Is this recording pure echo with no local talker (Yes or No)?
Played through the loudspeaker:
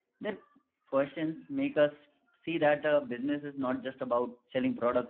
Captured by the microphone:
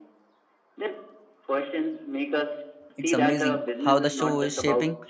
No